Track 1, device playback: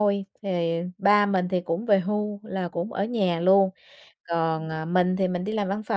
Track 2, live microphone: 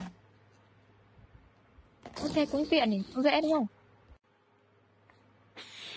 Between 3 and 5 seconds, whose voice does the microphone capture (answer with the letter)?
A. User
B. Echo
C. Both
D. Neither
A